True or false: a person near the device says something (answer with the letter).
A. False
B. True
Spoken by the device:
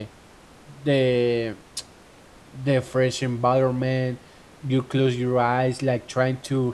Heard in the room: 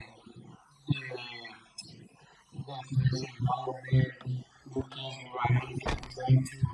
A